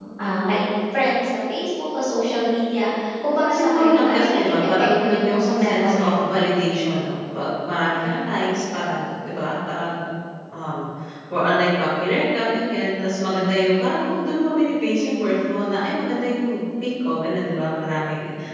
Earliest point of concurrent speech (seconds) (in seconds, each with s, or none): 3.5 s